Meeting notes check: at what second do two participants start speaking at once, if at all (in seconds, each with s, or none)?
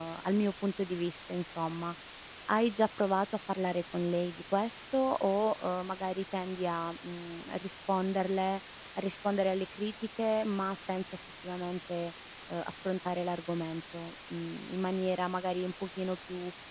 none